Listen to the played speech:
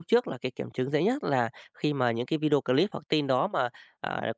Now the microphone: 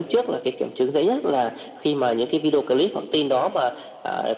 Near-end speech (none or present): none